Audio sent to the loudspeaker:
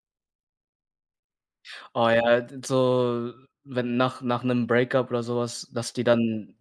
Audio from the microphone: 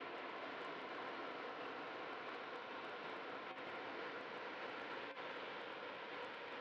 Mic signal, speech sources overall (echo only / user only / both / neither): neither